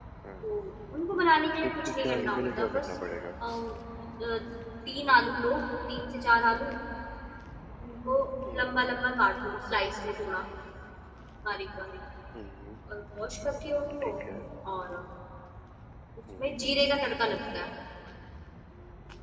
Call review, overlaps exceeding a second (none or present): present